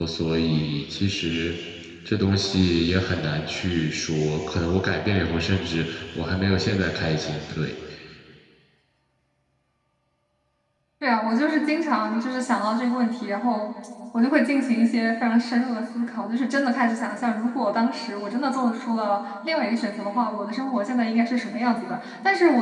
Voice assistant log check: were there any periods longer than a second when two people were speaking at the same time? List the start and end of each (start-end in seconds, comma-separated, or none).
none